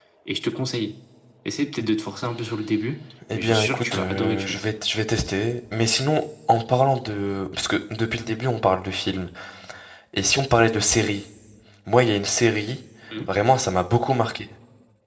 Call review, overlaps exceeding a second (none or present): present